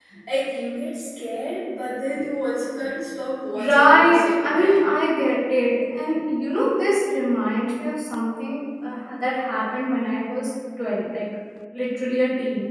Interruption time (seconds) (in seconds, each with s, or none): 3.5 s